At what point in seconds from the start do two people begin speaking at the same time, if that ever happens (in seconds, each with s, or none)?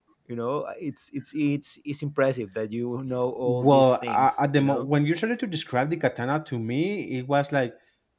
3.4 s